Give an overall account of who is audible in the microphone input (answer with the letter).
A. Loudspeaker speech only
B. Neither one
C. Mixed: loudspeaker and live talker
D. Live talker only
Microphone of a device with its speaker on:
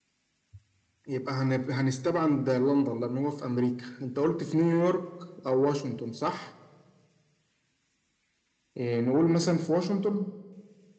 A